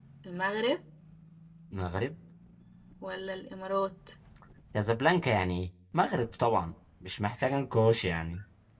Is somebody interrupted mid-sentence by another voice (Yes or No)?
No